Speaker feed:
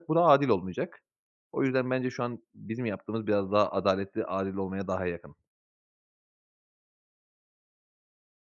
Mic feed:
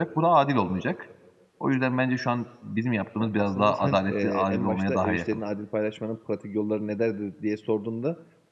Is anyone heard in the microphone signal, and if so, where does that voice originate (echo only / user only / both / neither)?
both